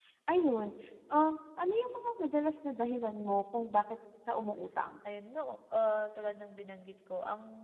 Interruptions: none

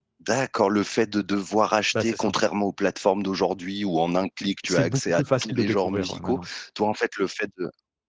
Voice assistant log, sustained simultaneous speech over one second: present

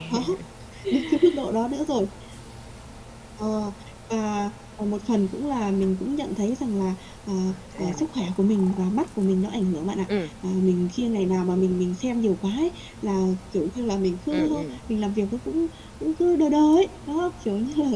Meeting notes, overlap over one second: none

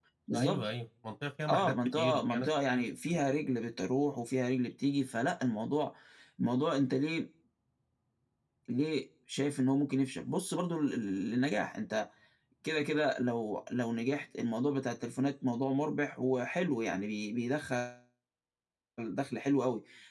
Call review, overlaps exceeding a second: present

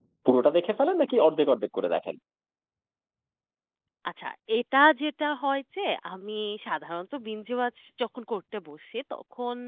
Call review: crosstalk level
none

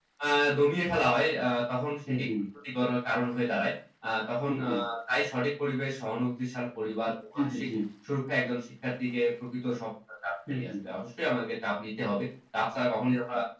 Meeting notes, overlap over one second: none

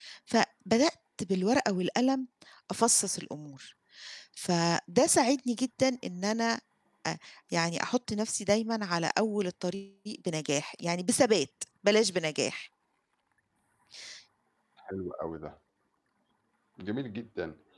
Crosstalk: none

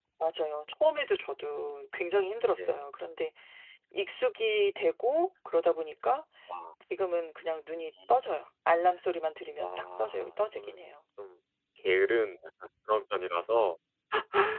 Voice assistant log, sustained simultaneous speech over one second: present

